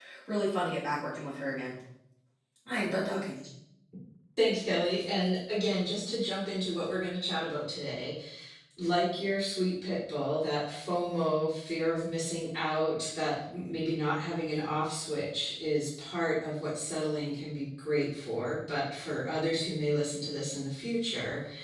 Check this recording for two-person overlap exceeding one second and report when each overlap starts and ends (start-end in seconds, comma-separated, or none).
none